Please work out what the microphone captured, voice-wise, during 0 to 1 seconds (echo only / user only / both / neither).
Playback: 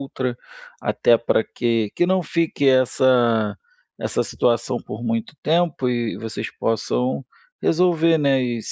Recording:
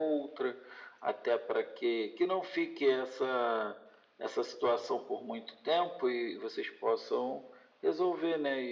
echo only